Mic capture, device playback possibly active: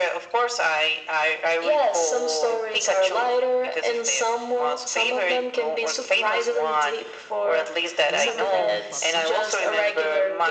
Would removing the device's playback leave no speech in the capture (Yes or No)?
No